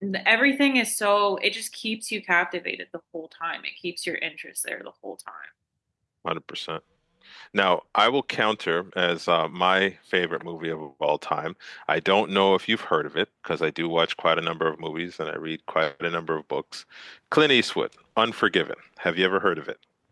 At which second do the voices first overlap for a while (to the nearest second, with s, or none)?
none